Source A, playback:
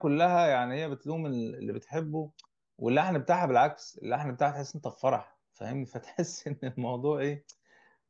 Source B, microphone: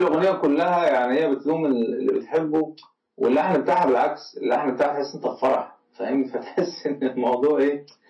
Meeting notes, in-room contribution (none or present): none